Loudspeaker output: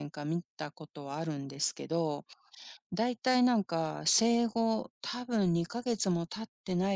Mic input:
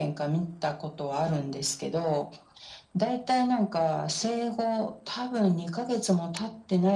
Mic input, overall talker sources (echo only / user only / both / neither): echo only